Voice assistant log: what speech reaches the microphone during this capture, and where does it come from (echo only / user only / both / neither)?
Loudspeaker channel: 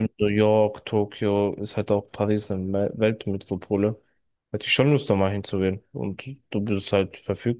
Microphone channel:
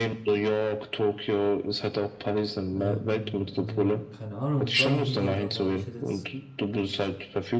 both